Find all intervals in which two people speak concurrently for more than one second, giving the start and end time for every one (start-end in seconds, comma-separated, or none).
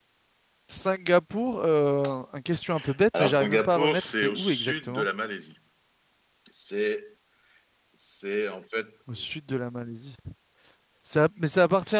3.2-5.0